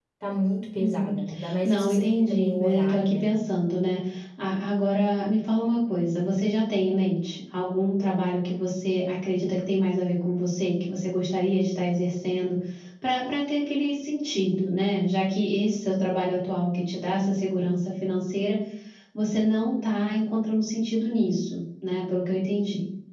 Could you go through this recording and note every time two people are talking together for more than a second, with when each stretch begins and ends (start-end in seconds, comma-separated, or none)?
1.6-3.3